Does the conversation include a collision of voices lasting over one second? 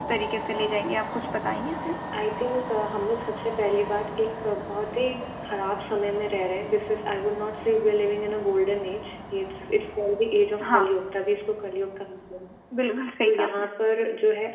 No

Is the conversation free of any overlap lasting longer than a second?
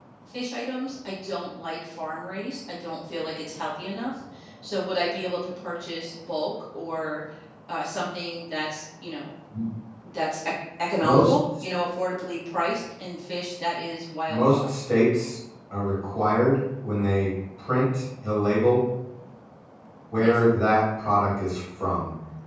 Yes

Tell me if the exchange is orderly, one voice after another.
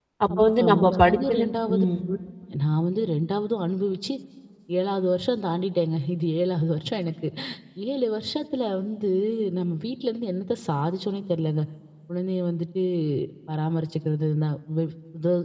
No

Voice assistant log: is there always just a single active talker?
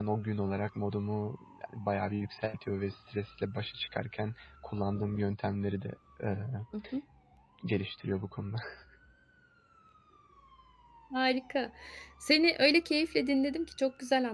Yes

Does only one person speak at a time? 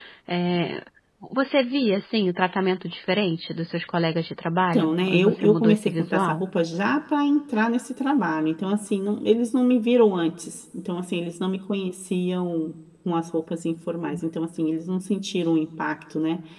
No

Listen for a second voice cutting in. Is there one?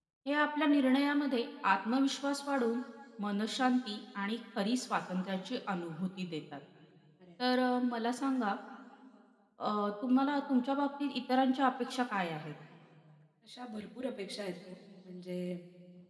No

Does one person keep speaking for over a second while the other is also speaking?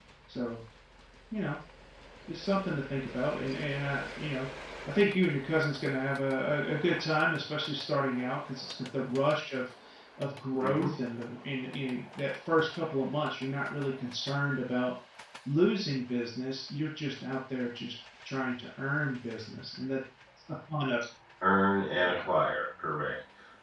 No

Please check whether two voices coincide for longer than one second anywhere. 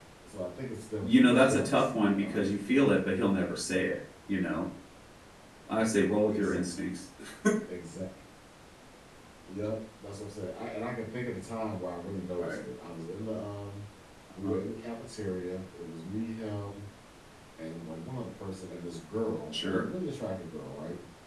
Yes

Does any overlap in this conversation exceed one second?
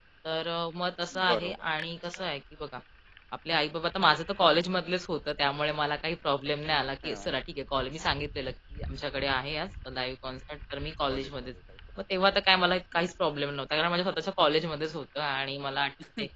No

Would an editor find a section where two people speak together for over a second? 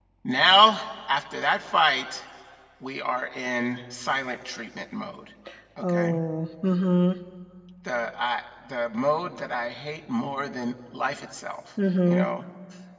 No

